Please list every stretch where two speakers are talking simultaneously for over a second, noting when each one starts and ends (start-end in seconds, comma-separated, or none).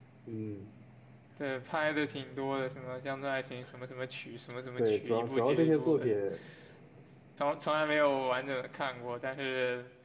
4.8-6.1